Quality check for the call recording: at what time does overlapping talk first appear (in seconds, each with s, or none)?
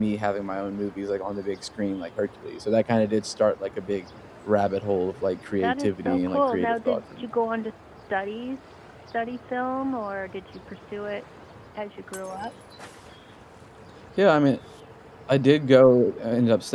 5.6 s